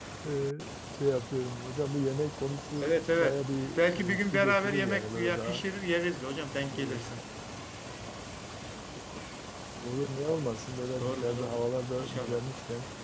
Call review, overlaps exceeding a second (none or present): present